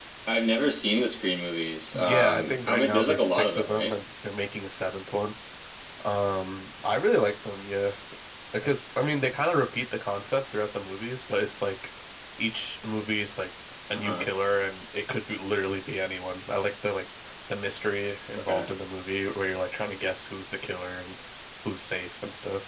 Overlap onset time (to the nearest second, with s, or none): 2 s